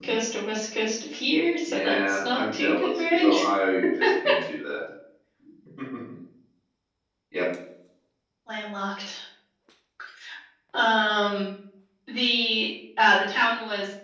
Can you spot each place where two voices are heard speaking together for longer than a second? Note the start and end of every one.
1.7-3.5

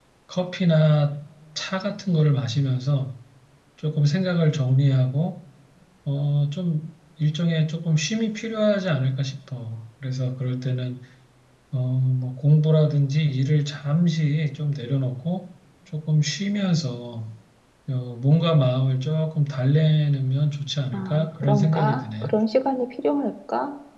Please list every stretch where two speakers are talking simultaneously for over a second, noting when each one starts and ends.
20.9-22.3

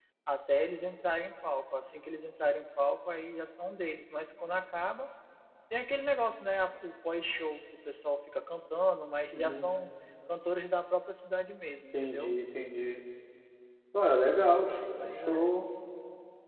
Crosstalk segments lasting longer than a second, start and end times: none

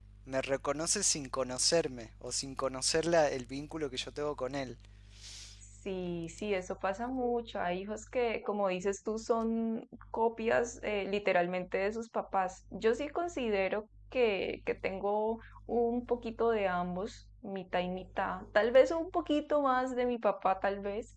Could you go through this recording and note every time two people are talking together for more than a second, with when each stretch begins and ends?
none

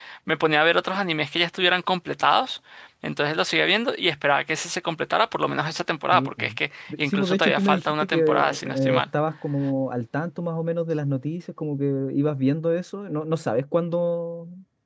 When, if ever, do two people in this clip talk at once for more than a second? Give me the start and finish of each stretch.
7.0-9.0

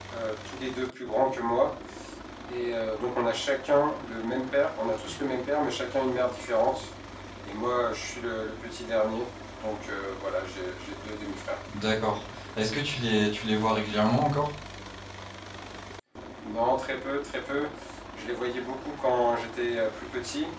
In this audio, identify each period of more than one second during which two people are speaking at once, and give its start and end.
none

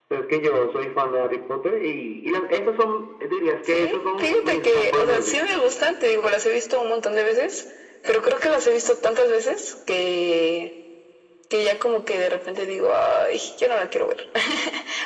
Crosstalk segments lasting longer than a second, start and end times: 3.7-5.4

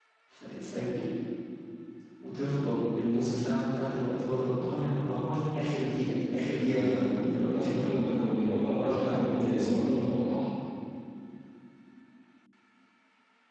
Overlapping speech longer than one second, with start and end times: 8.7-10.0

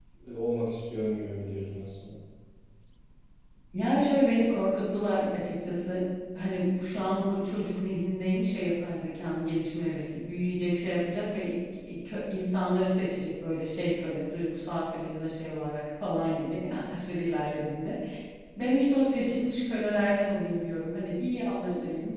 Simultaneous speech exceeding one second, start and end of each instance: none

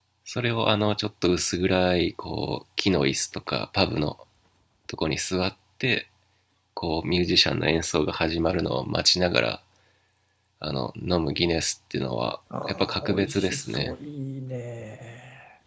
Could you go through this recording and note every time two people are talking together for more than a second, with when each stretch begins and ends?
12.6-13.9

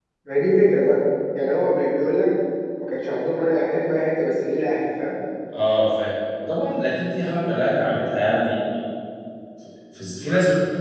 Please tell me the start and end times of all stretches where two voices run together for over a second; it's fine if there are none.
none

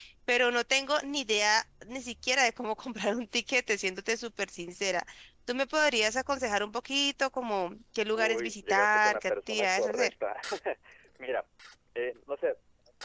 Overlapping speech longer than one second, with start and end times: 8.2-10.1

